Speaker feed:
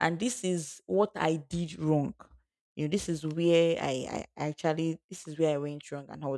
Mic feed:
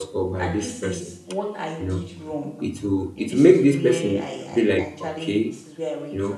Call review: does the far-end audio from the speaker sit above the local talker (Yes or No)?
No